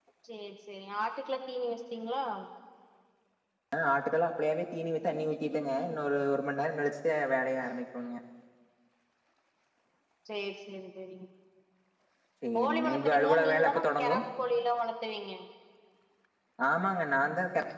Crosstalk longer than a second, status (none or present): present